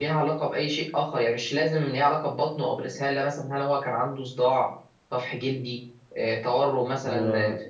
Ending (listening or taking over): taking over